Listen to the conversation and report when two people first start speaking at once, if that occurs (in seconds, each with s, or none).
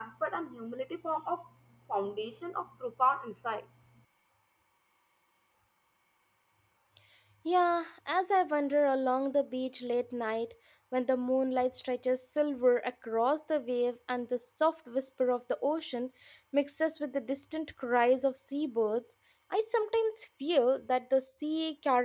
none